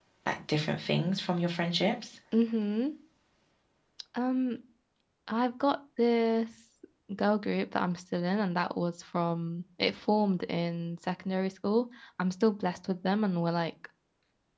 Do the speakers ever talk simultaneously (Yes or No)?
No